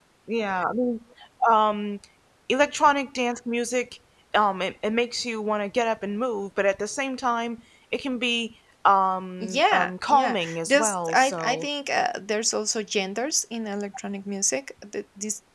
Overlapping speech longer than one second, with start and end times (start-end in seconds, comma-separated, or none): 9.4-11.7